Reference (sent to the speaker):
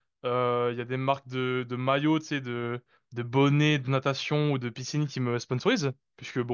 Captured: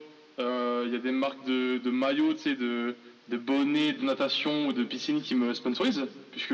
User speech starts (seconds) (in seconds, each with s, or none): none